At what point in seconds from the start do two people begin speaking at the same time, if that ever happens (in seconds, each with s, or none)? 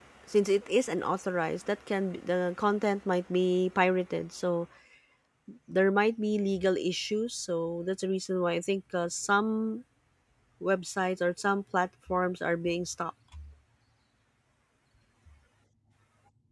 none